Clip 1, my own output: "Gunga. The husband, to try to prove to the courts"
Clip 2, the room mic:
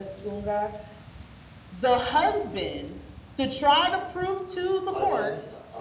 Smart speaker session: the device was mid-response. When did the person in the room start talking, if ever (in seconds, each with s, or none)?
4.9 s